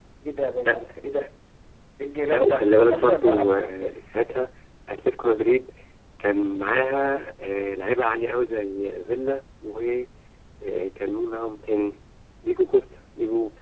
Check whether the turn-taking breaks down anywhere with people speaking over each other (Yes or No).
Yes